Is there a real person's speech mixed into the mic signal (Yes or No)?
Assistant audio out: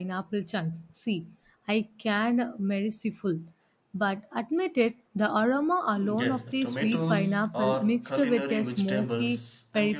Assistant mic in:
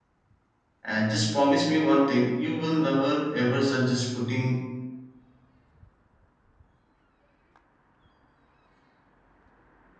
Yes